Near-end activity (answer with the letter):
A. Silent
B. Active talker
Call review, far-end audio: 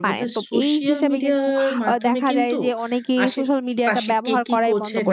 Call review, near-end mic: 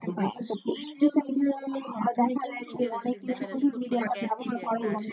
B